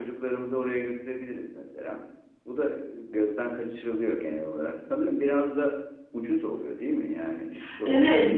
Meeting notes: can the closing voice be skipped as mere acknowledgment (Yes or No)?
No